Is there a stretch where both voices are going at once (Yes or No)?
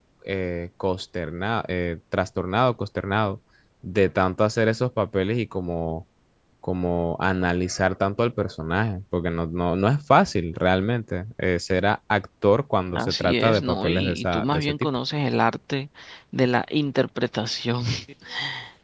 Yes